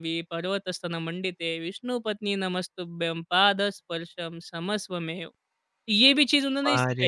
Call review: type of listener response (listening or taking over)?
taking over